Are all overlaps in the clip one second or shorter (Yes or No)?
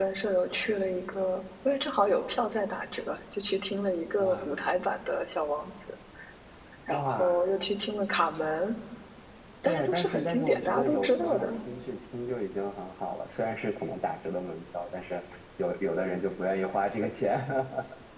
No